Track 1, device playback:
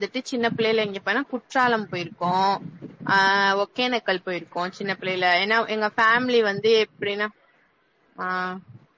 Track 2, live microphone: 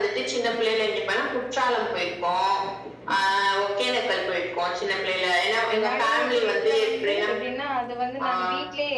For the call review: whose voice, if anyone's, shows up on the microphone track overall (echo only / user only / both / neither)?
both